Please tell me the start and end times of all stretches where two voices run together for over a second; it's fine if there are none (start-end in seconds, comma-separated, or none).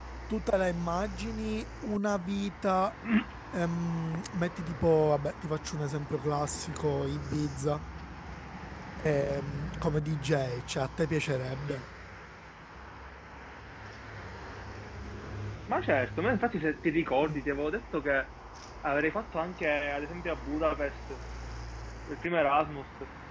none